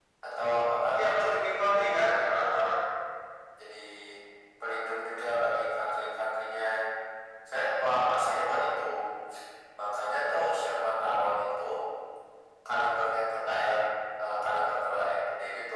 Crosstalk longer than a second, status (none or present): present